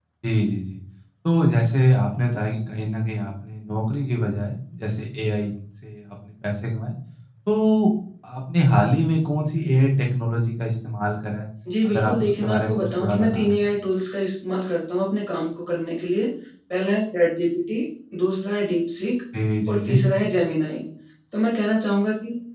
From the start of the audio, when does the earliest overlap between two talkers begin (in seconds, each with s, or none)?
11.8 s